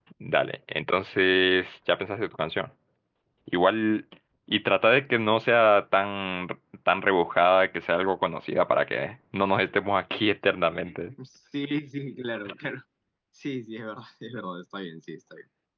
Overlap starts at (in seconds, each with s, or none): none